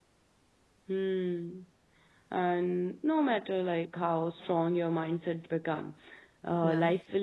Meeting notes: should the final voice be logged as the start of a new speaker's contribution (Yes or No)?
No